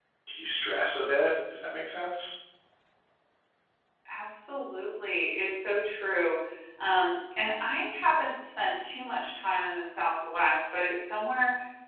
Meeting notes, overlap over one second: none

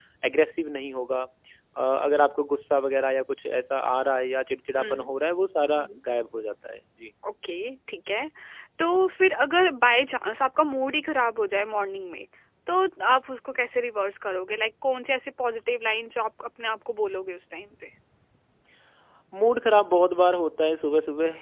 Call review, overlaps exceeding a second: none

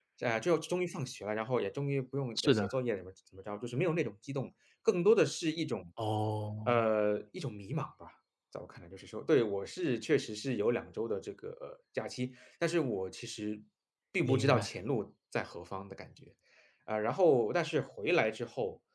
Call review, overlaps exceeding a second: none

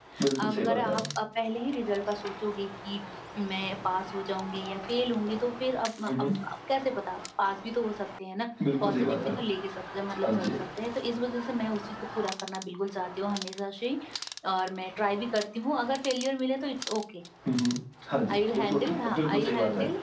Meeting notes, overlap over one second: present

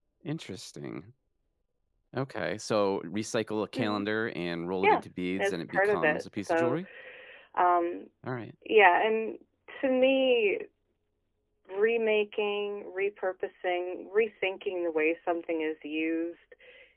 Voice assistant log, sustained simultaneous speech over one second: present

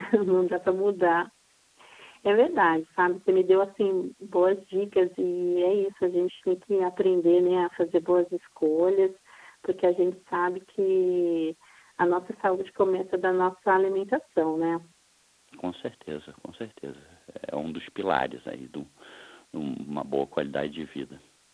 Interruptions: none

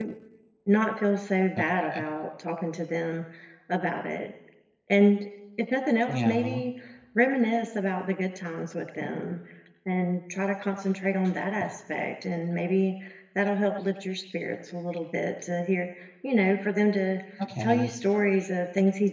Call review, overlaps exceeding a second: none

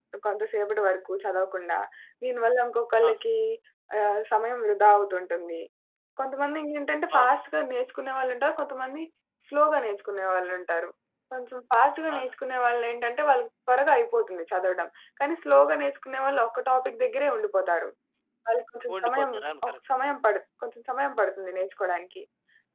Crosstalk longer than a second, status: none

